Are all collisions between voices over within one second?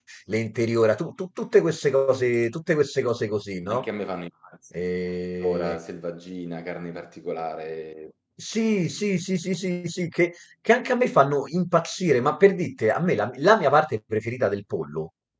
Yes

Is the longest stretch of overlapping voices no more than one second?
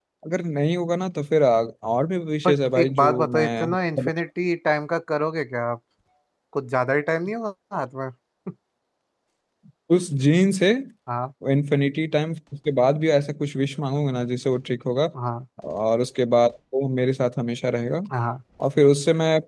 No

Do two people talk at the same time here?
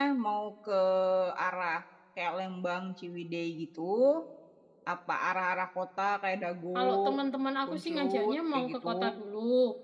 Yes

